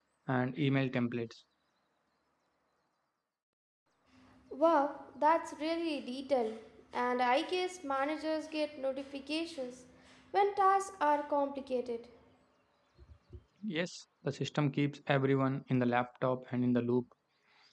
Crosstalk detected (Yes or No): No